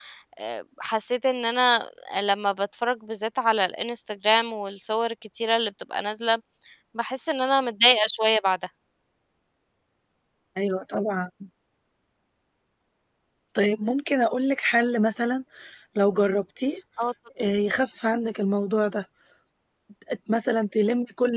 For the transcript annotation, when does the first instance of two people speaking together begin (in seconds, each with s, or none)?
none